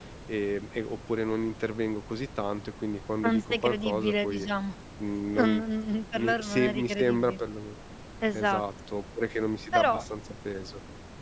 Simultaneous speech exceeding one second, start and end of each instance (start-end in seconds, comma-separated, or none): 3.2-4.5, 6.2-7.4